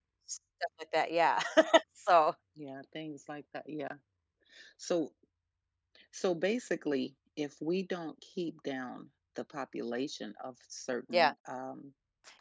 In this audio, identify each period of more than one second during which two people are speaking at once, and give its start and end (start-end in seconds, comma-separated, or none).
none